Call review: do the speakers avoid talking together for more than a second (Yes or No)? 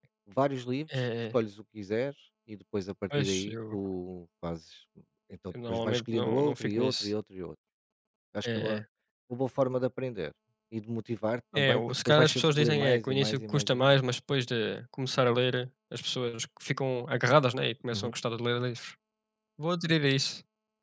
No